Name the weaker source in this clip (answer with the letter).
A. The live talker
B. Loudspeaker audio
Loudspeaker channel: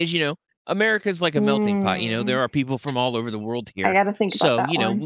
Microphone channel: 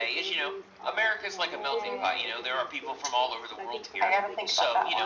A